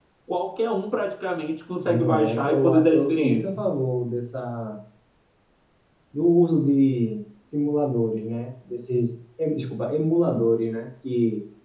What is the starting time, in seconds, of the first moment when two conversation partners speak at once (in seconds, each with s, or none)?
1.8 s